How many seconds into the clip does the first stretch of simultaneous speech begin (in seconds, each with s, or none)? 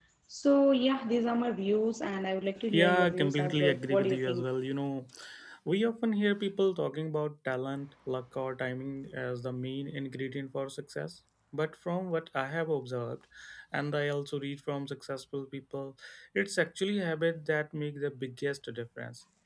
2.7 s